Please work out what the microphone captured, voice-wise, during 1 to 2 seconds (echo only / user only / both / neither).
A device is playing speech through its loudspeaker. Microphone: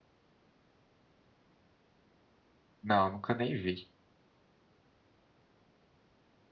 neither